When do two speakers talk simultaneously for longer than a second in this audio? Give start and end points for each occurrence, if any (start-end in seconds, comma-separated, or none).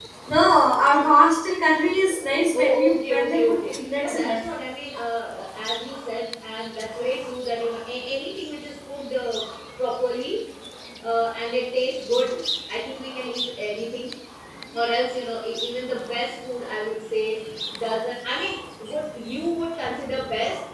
2.5-4.4